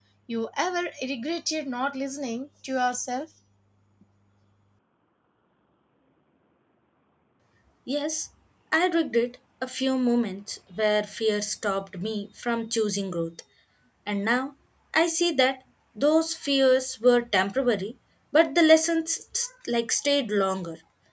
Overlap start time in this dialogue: none

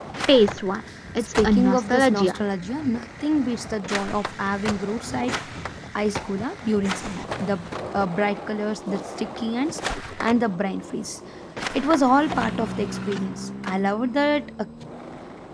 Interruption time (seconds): 1.2 s

